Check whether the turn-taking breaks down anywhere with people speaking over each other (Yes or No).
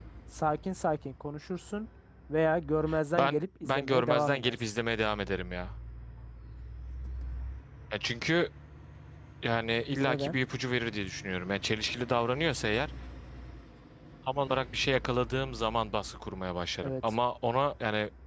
Yes